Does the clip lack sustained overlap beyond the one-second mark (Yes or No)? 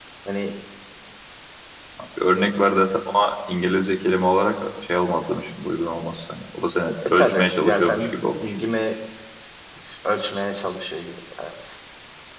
No